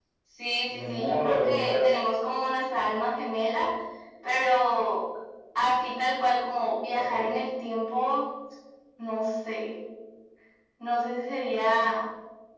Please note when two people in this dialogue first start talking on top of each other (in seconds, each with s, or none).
0.6 s